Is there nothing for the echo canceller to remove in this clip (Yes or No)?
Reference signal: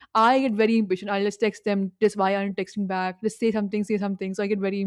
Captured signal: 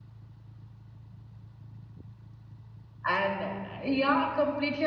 Yes